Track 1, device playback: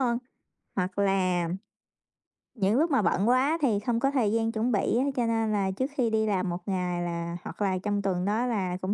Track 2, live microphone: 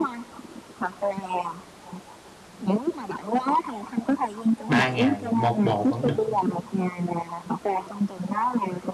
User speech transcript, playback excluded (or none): 3 ngày 1 bộ vẫn được.